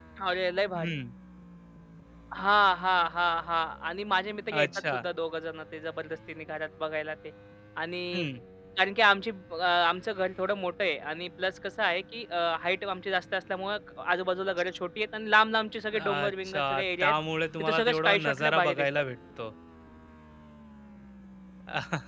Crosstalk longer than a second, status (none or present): present